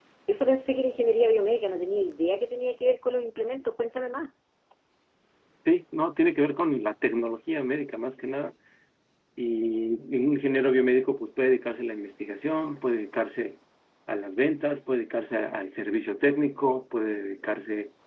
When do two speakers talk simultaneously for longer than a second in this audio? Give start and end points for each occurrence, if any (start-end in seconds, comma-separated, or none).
none